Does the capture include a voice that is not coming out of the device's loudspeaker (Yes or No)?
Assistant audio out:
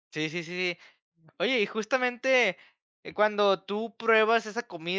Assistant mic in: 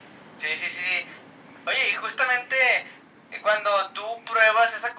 No